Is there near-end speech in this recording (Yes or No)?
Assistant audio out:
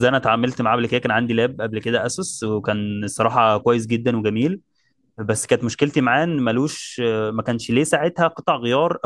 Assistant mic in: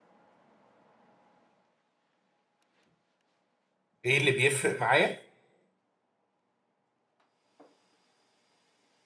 Yes